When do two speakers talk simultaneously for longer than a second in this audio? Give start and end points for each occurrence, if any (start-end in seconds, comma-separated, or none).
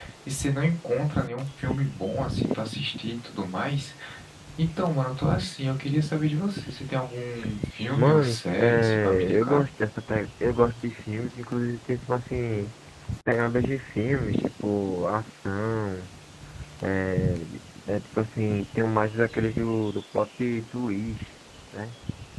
8.0-9.6